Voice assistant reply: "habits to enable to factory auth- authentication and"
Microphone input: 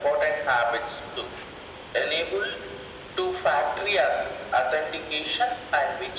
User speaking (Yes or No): No